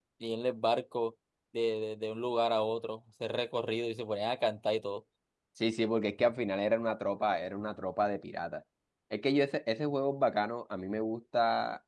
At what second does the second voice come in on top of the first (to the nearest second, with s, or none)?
none